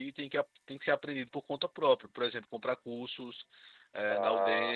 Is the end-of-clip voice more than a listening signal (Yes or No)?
Yes